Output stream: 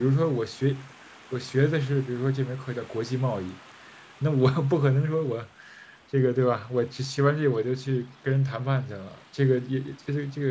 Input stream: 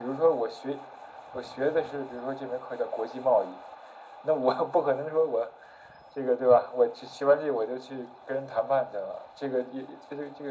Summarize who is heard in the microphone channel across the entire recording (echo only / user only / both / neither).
echo only